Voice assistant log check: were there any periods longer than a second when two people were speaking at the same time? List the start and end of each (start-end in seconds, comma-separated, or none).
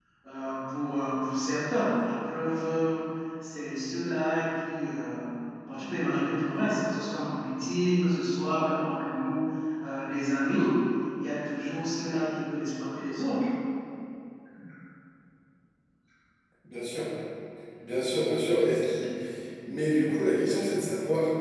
none